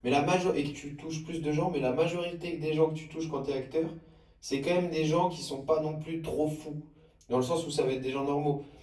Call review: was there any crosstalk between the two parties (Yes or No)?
No